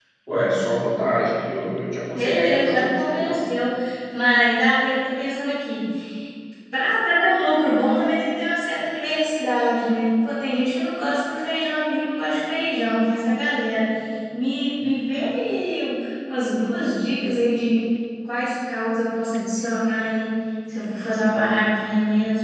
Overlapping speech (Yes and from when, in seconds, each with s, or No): Yes, from 2.1 s